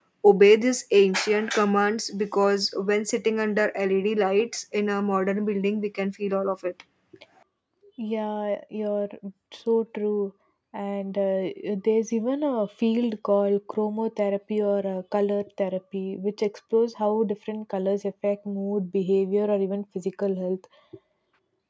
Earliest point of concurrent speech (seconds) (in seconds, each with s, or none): none